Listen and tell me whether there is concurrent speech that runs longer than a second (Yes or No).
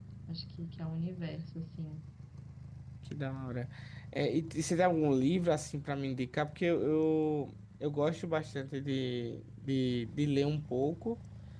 No